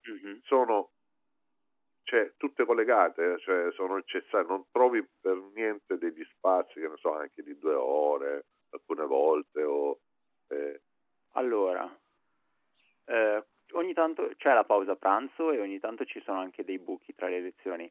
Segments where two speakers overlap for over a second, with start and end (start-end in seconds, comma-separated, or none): none